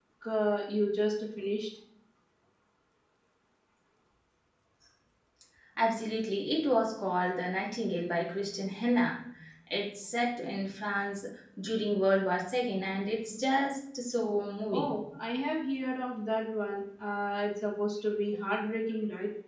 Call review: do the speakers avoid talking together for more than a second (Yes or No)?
Yes